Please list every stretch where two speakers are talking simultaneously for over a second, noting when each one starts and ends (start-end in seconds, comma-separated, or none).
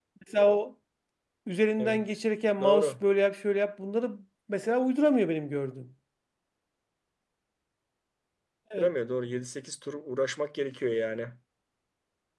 none